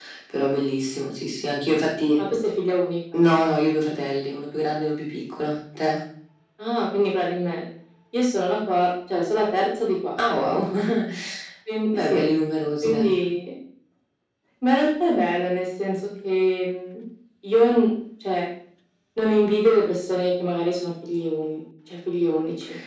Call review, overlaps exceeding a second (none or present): none